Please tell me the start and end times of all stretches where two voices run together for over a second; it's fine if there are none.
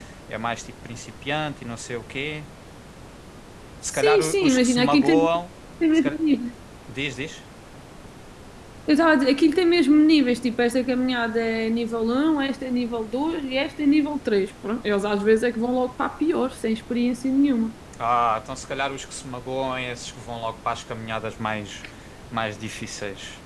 3.9-5.2

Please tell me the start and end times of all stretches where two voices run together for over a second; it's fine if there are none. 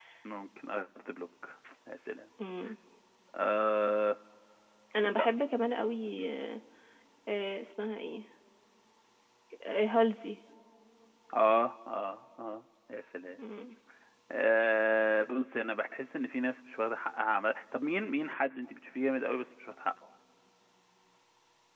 none

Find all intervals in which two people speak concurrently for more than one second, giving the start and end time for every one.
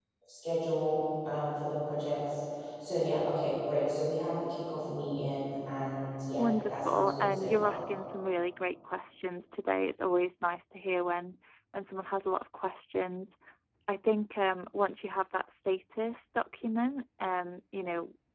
6.4-7.8

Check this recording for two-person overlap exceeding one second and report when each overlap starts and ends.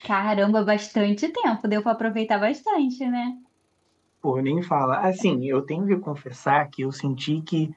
none

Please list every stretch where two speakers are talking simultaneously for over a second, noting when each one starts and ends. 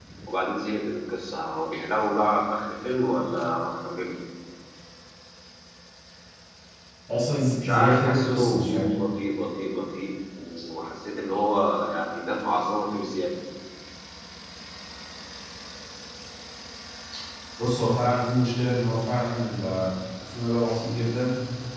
7.6-8.9

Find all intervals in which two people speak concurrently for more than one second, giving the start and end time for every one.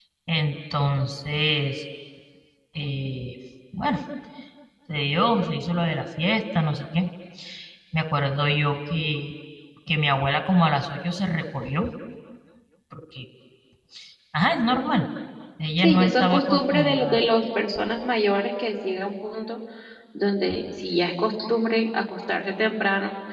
15.8-17.2

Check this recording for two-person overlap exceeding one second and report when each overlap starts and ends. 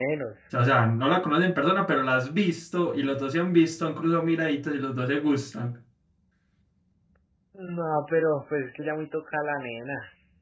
none

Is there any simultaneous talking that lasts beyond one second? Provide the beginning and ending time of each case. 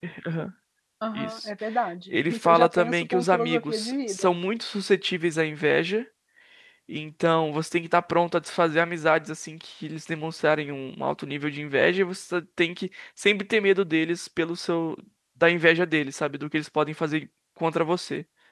2.1-4.3

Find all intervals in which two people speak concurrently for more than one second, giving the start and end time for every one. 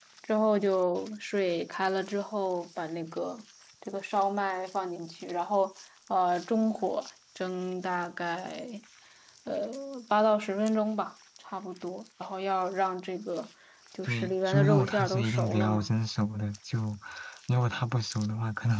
14.0-15.9

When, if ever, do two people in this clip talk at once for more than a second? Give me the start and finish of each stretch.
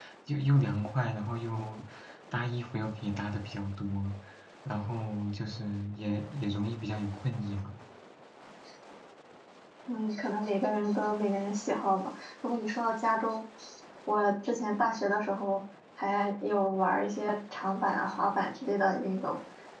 none

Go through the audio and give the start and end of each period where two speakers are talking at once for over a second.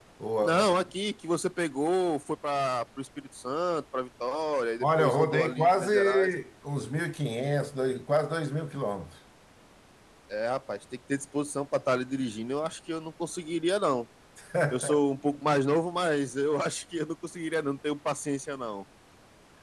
4.8-6.3

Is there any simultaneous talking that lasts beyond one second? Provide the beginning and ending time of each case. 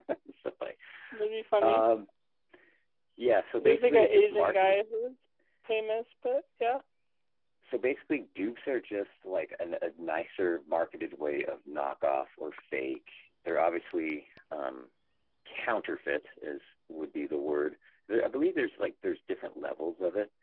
3.6-4.9

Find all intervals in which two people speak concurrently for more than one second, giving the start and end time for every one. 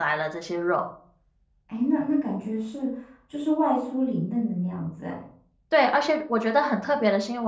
none

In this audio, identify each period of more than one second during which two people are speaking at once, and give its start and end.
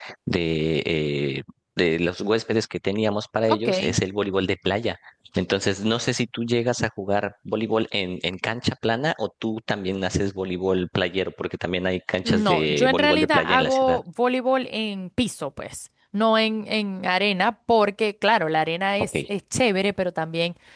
12.2-14.0

